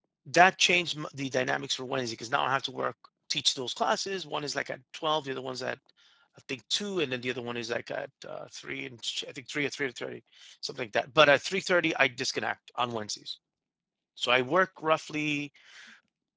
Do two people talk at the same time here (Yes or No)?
No